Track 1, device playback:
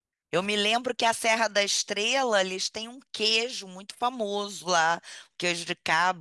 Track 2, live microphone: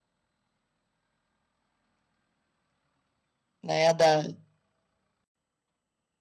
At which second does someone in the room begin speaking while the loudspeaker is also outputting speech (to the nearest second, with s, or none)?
4 s